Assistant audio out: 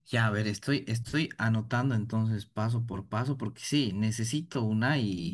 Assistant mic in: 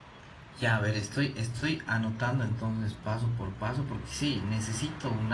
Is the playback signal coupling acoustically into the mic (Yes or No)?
Yes